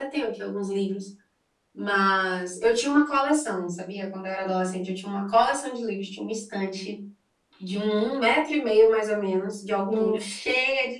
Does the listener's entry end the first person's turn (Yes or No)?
No